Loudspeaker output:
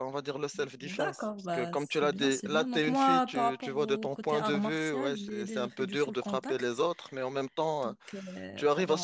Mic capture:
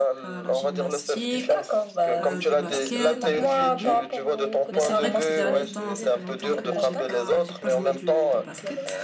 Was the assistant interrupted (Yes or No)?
Yes